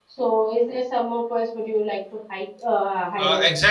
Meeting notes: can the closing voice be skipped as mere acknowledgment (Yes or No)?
No